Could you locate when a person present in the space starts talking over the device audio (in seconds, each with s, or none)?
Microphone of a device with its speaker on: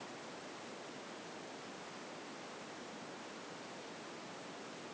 none